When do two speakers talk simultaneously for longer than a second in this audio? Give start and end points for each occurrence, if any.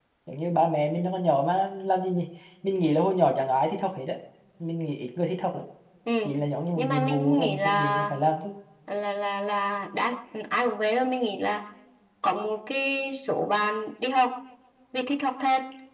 6.8-8.1

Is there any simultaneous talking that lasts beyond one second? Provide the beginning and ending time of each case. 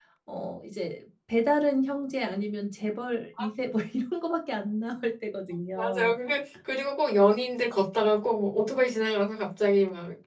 none

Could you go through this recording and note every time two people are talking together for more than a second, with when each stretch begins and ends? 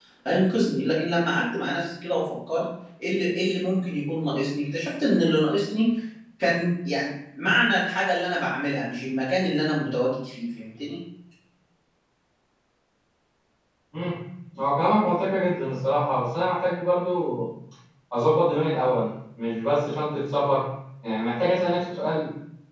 none

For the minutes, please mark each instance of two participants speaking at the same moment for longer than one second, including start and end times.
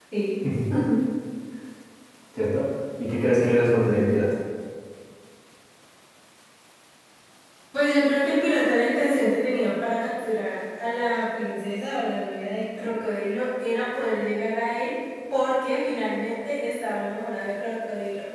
none

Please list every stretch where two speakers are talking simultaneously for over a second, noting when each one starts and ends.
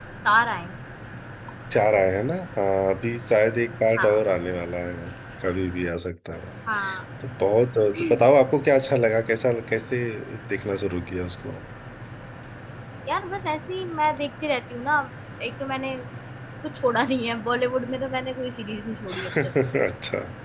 none

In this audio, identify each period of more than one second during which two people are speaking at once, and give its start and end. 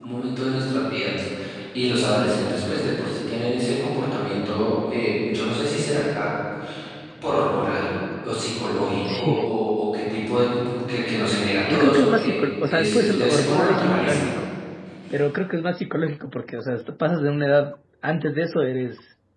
11.7-14.3

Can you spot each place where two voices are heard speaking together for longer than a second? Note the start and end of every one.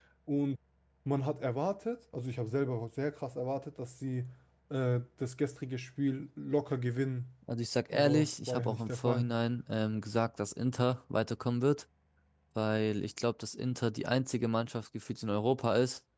7.9-9.3

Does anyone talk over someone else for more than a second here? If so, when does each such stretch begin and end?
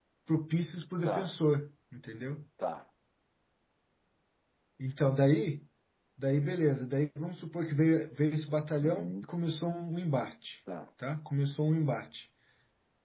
none

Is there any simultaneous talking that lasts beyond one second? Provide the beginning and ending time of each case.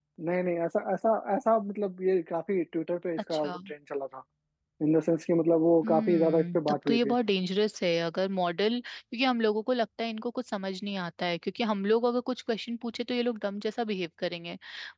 5.8-7.1

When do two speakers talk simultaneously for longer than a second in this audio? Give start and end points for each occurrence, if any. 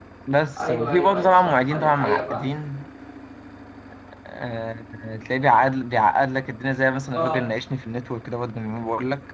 0.6-2.4

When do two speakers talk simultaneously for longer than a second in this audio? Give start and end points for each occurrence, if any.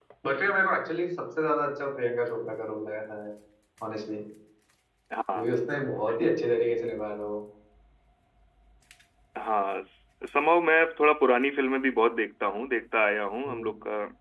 none

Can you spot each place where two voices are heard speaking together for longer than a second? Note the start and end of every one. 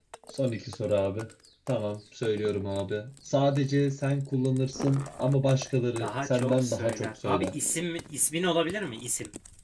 6.0-7.5

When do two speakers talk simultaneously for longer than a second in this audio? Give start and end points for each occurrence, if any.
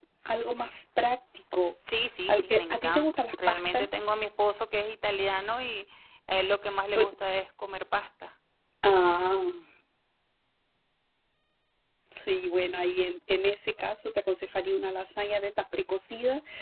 2.3-3.9

